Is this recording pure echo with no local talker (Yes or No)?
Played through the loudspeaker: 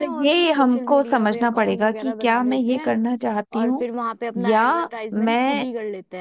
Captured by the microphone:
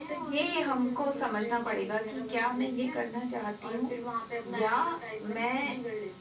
Yes